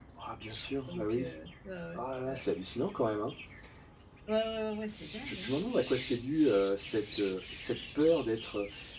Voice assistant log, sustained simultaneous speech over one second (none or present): none